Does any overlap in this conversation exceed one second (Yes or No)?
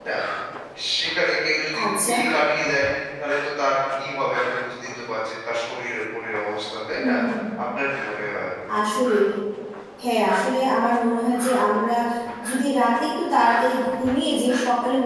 No